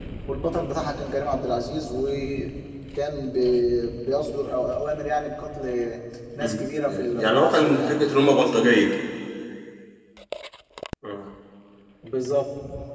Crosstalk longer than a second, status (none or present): present